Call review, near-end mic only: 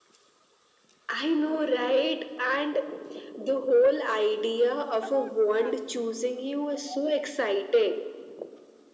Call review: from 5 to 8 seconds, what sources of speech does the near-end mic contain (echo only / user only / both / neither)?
both